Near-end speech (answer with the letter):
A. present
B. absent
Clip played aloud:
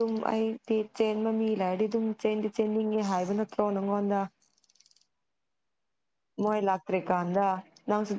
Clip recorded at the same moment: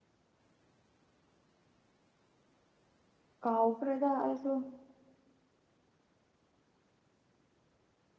A